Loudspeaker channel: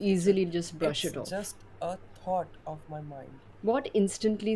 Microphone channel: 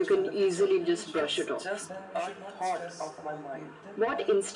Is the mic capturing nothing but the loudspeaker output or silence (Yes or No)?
No